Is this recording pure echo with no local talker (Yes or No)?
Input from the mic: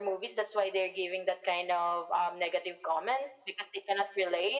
Yes